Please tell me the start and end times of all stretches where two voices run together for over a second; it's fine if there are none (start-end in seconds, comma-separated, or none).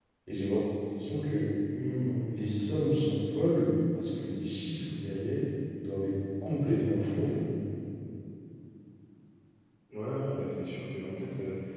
none